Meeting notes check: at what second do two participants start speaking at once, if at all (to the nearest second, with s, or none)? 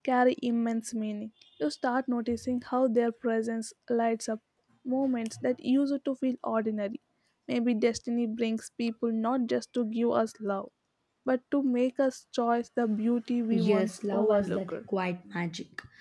14 s